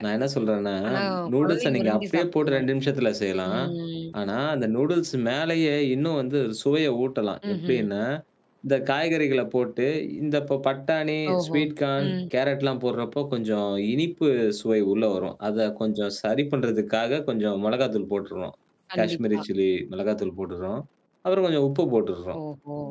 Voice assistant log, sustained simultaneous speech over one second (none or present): present